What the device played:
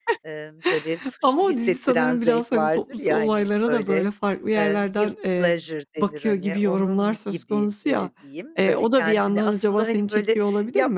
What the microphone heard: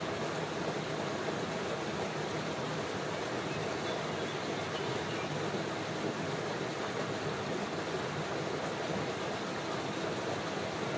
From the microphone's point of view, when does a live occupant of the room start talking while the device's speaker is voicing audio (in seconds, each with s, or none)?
none